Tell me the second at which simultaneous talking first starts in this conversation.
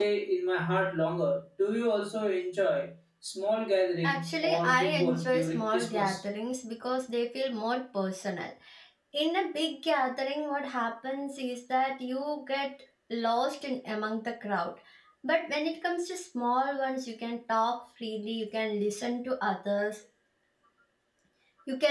4.0 s

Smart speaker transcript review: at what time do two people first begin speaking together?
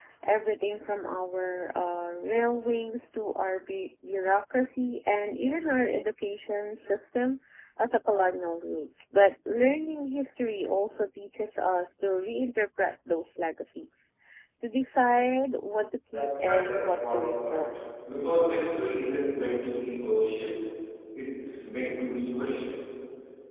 16.1 s

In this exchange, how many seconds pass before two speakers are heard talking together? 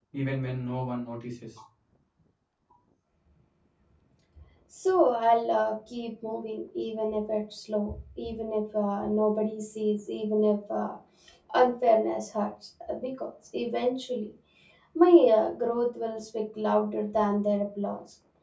none

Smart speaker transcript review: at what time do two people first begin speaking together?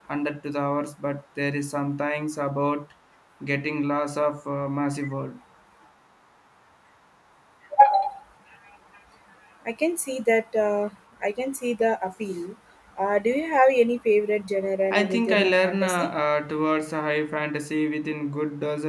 14.9 s

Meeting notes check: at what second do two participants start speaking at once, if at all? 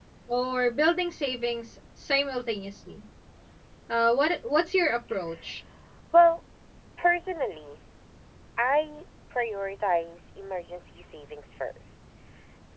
none

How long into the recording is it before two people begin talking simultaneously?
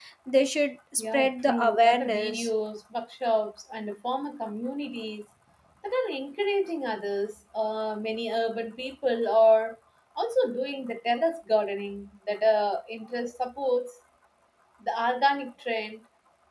1.0 s

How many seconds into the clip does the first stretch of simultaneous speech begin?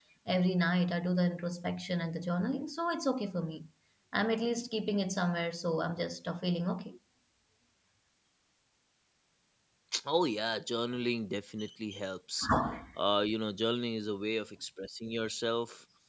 none

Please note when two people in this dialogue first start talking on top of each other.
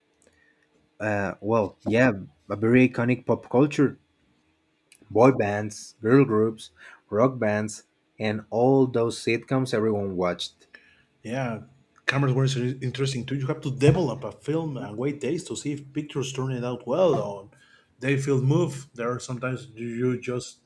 none

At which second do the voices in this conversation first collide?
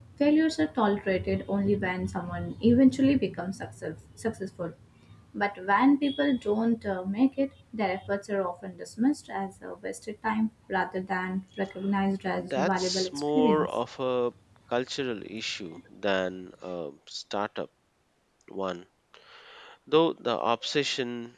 12.4 s

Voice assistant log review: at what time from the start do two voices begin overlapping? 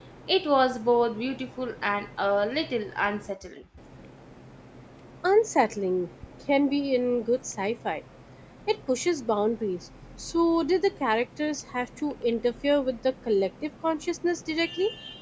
none

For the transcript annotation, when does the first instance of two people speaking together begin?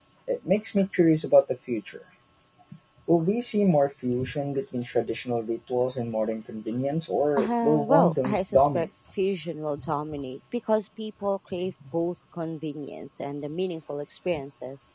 7.4 s

